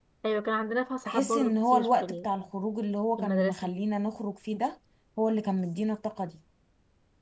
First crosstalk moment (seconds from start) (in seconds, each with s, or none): 1.1 s